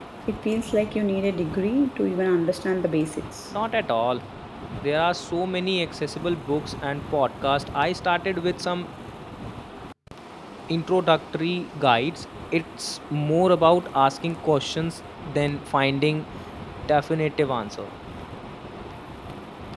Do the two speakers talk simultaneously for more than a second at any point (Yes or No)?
No